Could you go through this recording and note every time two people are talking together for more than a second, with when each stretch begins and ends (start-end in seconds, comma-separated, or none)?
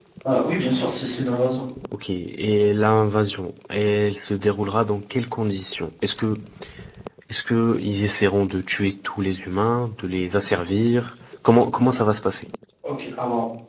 none